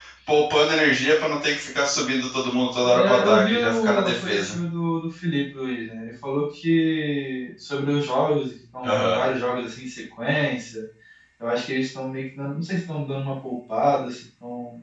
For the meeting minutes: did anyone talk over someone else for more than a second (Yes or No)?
Yes